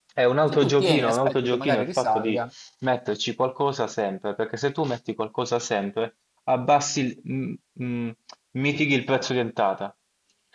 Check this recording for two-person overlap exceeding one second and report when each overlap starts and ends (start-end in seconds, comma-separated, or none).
0.5-2.4